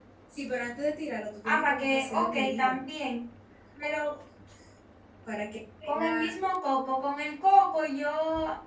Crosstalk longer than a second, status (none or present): present